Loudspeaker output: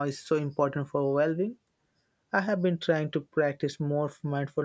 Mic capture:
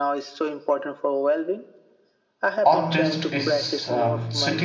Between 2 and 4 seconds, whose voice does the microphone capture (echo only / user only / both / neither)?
both